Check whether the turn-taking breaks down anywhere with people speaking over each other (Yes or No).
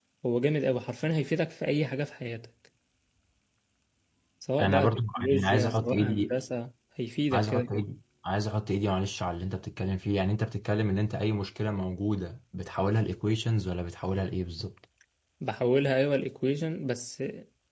Yes